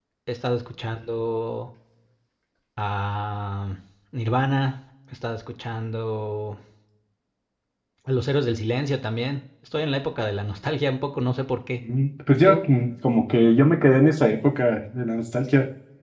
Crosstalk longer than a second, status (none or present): none